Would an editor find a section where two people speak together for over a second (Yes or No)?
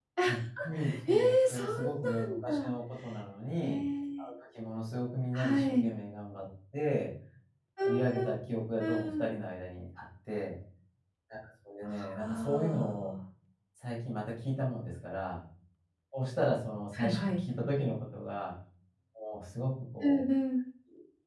Yes